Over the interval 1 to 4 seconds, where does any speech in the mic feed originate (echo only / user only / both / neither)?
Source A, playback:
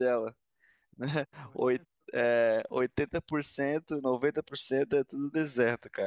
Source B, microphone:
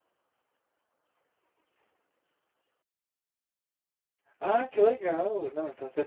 neither